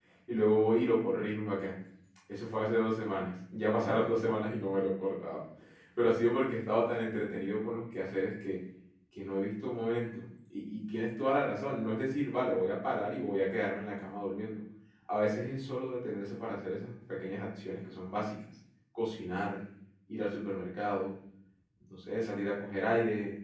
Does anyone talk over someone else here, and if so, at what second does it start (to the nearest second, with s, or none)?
none